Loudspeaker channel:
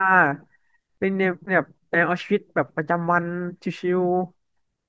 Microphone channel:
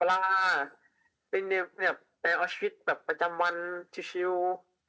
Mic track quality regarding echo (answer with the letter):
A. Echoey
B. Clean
A